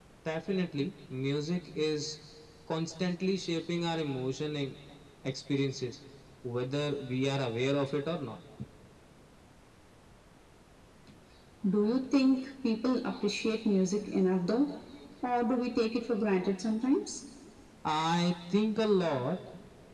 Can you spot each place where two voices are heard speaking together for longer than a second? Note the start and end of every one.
none

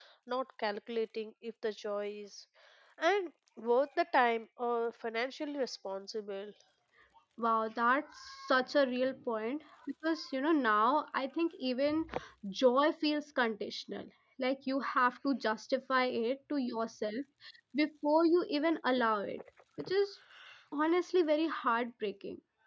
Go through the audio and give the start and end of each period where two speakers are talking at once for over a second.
none

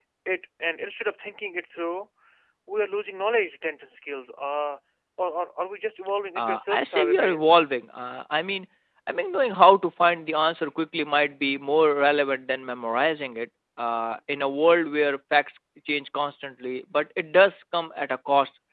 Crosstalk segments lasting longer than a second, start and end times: 6.4-7.6

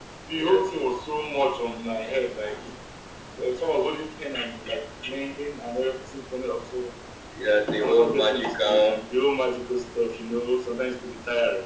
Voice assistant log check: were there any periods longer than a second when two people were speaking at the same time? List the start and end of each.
7.8-9.0

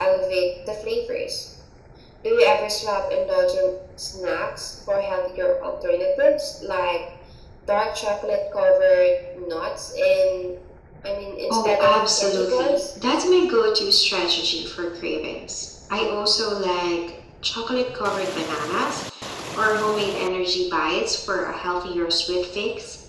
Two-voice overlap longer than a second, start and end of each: 11.5-12.8

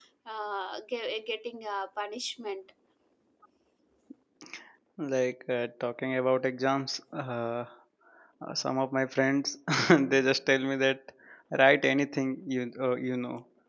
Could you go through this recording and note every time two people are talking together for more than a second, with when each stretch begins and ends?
none

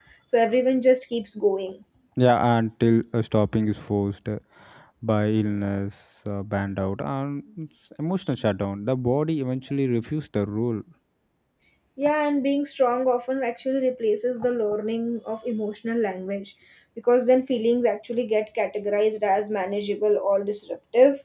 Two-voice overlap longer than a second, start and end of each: none

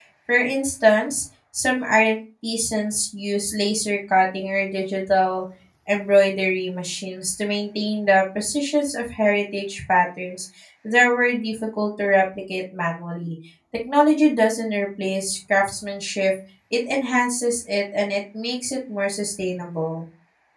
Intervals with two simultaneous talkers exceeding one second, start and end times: none

